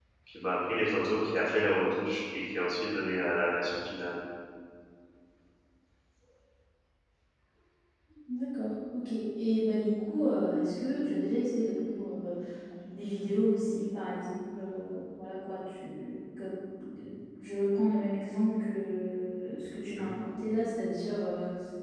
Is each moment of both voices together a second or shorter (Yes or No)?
Yes